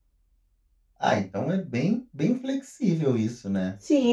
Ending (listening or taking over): taking over